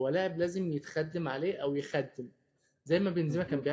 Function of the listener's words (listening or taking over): listening